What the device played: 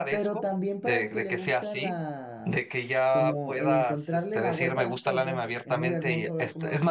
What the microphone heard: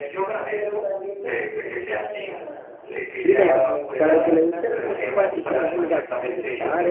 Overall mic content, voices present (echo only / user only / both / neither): both